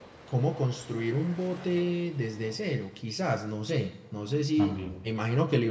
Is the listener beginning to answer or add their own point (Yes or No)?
No